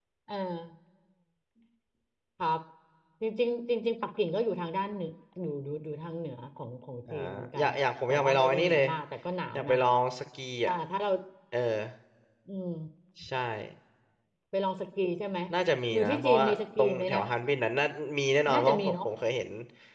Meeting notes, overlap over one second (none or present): present